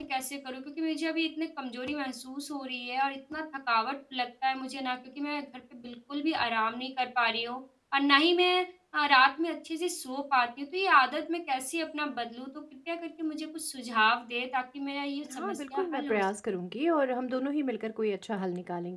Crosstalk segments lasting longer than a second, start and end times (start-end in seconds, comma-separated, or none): 15.3-16.6